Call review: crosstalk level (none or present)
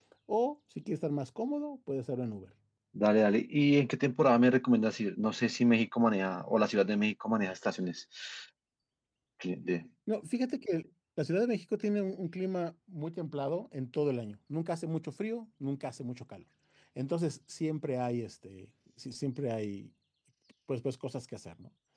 none